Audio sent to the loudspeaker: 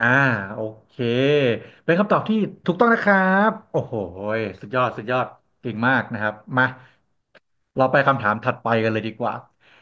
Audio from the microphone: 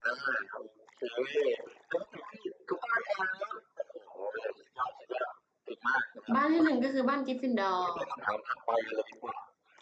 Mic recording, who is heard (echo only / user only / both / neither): both